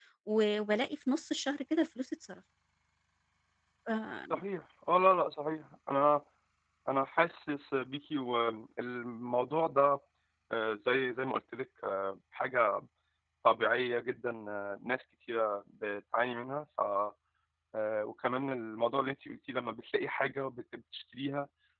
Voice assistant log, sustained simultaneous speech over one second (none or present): none